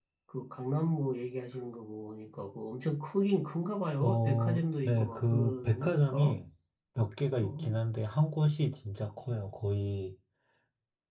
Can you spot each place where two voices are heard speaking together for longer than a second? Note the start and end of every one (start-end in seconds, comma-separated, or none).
4.0-6.4